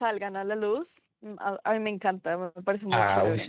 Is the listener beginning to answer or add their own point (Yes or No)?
Yes